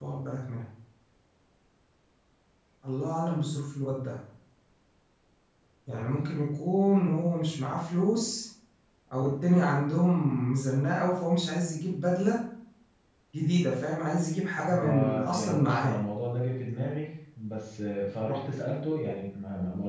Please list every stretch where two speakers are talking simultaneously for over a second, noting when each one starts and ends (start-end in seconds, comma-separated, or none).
14.7-16.0